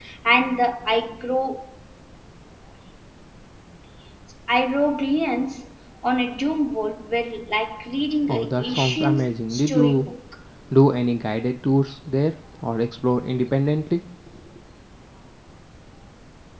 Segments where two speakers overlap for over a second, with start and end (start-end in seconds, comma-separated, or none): 8.3-10.1